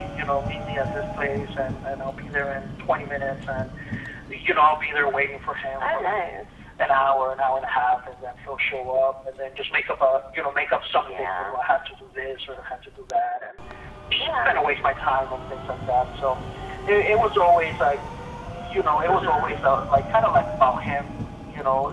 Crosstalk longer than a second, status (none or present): none